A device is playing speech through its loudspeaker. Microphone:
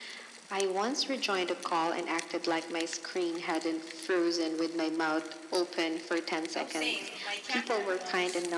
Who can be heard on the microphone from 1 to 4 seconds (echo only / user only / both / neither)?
echo only